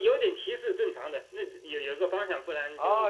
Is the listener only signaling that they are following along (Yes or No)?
No